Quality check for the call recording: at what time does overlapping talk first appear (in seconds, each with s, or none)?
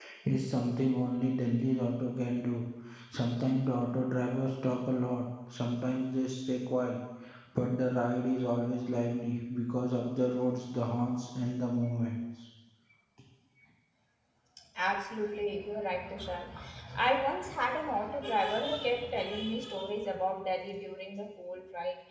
none